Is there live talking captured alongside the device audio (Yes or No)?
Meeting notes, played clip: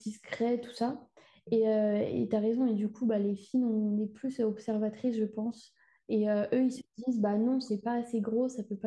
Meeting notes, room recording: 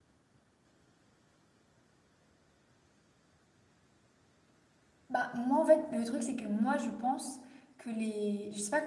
Yes